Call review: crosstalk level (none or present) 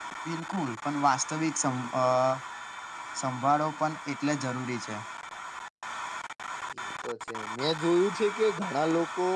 none